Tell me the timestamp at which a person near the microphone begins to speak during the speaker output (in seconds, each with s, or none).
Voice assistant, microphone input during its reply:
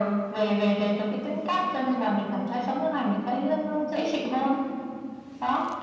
none